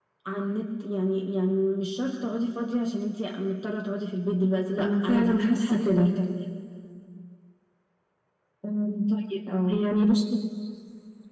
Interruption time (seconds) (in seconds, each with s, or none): 4.8 s